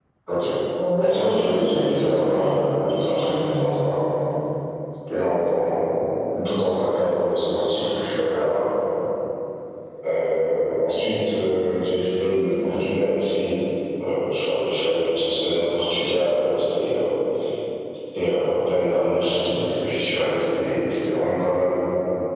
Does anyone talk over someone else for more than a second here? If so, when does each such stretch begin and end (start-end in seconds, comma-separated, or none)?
1.0-3.8